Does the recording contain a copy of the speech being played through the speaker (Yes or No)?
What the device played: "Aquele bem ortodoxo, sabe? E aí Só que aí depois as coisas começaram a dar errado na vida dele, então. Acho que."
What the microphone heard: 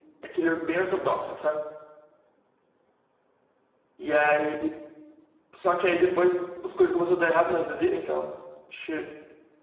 Yes